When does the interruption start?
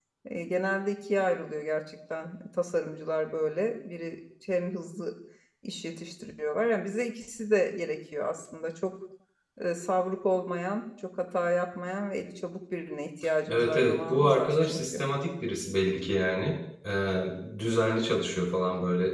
13.5 s

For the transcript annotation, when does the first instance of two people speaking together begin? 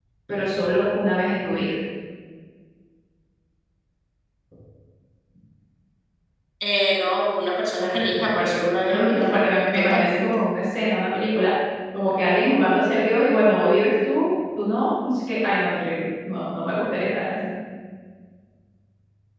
7.8 s

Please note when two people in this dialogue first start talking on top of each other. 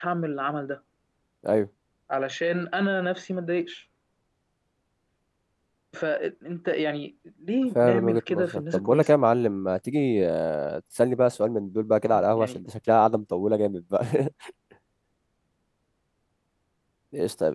7.8 s

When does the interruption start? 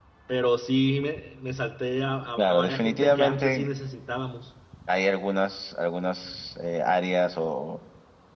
2.4 s

